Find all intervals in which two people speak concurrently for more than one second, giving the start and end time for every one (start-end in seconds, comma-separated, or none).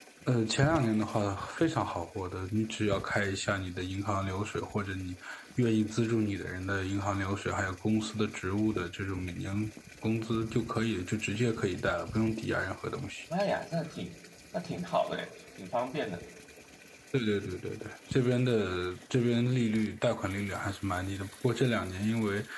none